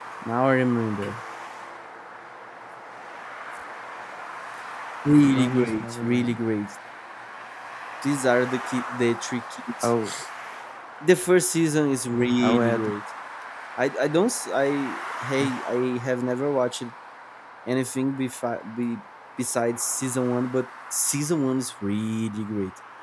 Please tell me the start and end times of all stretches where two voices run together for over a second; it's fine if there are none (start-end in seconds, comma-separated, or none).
5.1-6.4